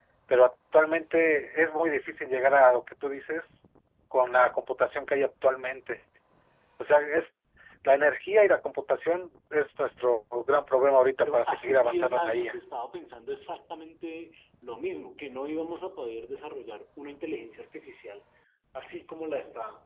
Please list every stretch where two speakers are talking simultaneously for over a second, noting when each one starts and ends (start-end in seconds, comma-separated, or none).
11.2-12.6